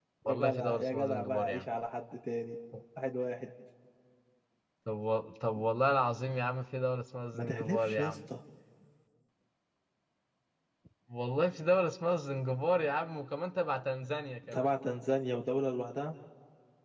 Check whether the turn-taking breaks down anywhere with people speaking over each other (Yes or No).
Yes